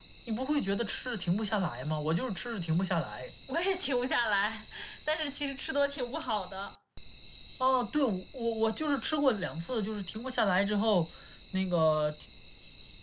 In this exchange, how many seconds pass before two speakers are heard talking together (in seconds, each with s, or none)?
none